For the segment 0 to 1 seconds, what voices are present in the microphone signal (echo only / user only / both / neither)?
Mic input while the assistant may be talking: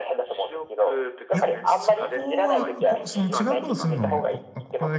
echo only